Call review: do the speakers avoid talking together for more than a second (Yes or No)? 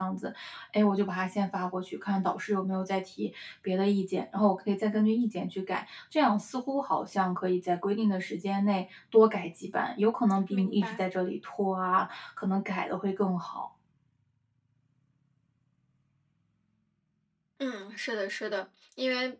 Yes